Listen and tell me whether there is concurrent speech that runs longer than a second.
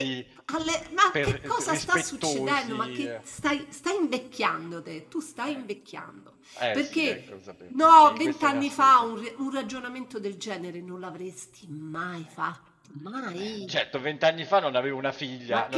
Yes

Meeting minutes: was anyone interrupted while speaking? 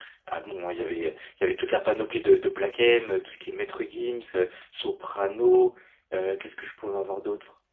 No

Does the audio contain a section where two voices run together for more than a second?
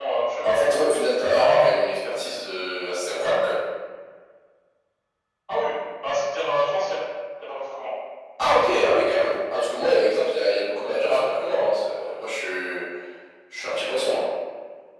No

